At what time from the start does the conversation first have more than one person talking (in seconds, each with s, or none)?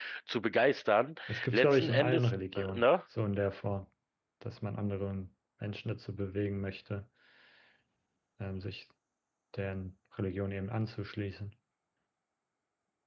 1.3 s